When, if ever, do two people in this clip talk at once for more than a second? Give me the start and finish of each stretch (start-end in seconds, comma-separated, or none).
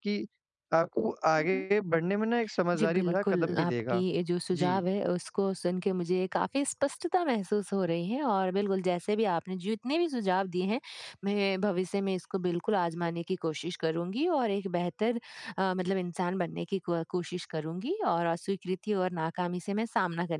2.8-4.0